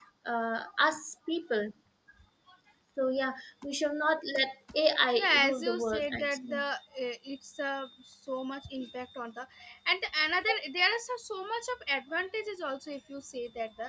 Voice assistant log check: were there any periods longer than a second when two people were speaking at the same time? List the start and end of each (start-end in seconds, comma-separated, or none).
5.1-6.6